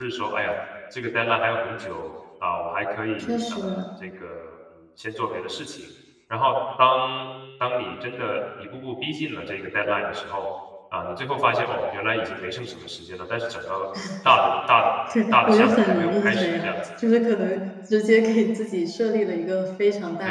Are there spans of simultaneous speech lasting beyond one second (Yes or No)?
Yes